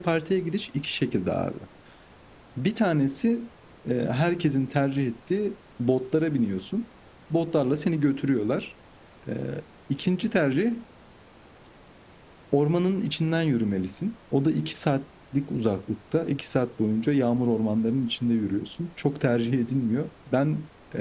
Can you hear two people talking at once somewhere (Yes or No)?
No